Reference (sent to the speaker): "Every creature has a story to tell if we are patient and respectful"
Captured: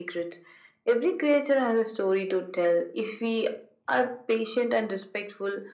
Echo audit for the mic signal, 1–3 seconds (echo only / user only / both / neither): echo only